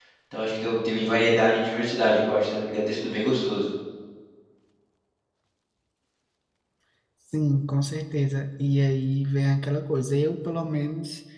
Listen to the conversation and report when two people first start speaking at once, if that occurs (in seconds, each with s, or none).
none